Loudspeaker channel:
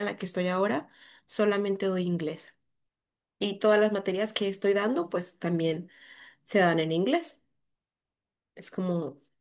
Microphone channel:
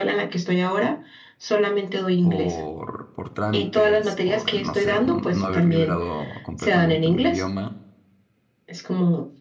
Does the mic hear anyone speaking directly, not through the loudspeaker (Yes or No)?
Yes